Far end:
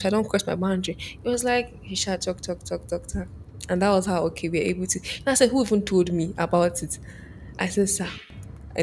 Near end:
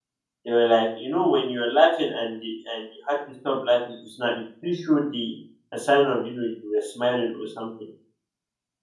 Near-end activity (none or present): present